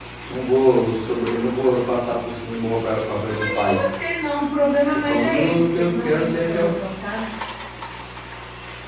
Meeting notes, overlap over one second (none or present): present